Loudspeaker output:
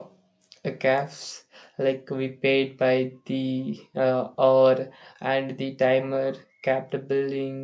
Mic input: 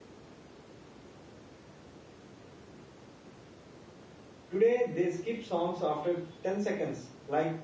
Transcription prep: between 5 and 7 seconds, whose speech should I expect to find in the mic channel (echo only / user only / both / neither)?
user only